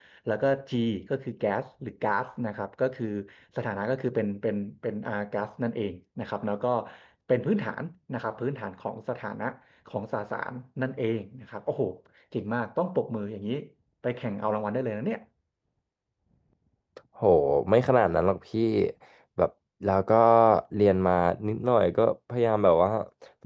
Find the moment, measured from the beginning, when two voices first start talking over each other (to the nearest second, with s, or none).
none